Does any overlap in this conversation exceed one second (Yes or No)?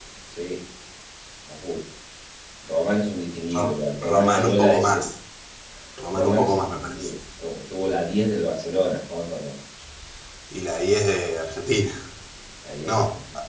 Yes